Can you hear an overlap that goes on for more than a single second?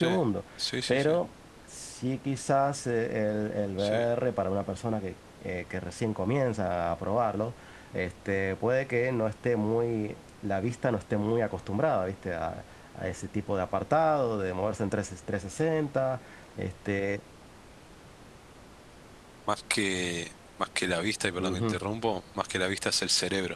No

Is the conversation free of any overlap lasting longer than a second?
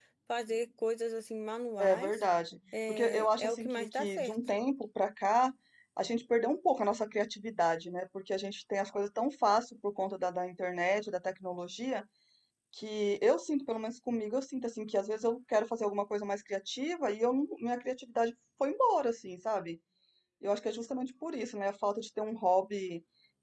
No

